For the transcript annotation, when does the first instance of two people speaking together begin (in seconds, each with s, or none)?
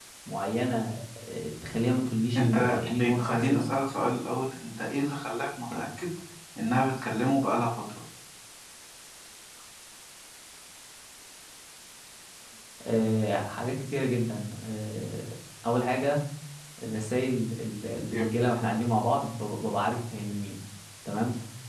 2.4 s